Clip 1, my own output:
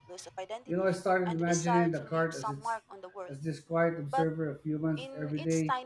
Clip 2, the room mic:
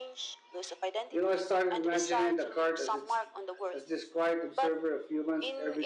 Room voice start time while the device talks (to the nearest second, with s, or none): none